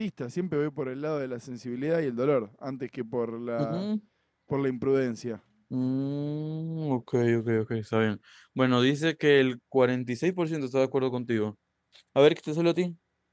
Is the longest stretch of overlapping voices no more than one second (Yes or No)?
Yes